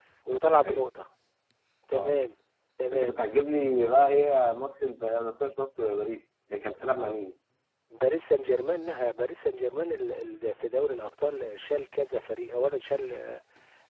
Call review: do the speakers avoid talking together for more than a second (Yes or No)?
Yes